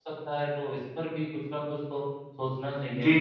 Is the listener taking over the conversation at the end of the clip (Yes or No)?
Yes